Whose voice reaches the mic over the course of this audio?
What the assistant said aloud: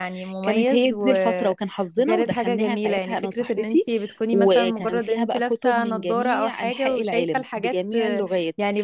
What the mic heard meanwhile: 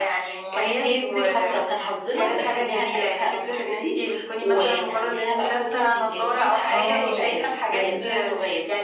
both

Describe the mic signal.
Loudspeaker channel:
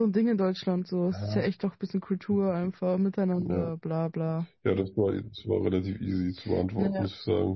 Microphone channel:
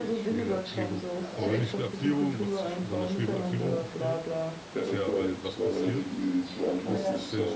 both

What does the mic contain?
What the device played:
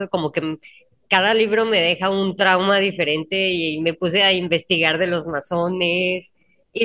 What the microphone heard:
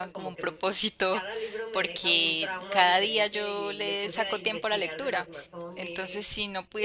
both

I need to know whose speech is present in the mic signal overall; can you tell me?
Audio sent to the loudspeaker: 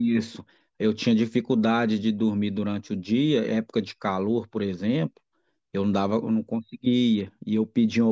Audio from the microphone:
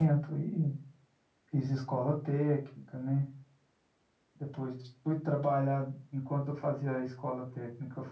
user only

